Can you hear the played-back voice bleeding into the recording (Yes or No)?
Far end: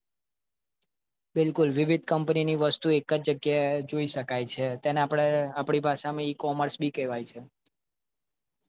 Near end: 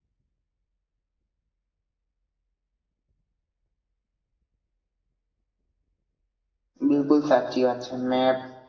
No